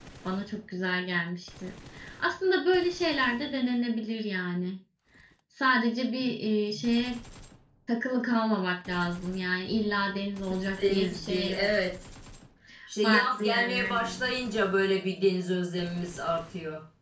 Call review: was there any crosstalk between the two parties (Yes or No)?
Yes